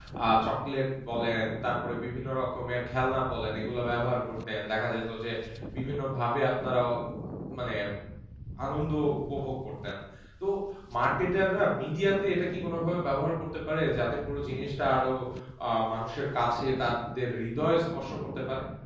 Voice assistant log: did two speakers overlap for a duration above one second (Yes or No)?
No